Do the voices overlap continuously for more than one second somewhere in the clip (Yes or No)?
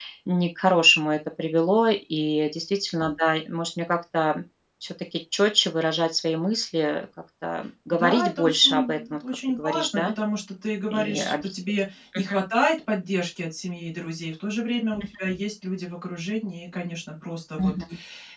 Yes